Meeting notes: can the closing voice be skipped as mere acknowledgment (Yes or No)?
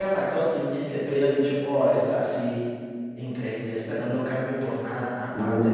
No